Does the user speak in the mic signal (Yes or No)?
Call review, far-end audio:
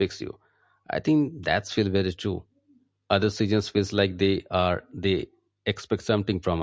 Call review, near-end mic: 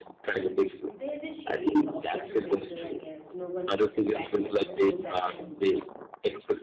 Yes